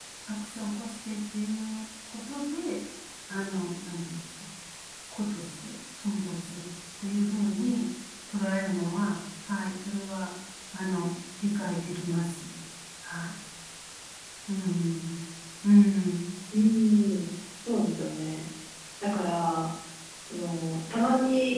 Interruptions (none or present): none